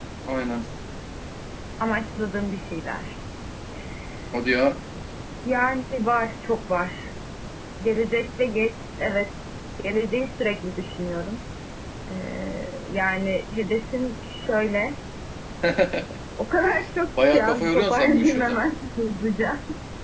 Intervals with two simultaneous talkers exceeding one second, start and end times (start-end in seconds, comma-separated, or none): 17.2-18.7